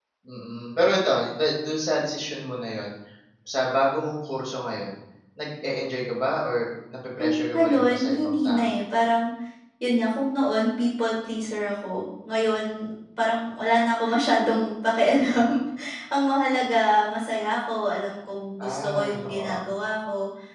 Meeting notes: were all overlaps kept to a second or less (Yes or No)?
No